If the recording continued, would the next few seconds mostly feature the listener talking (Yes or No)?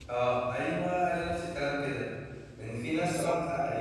No